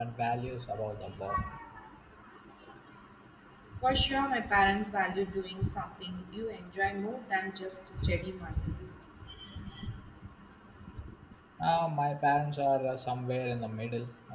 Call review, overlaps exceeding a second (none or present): none